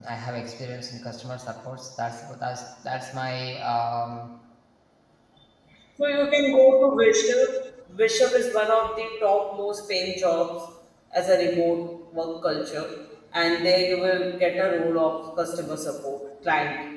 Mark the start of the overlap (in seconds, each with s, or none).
none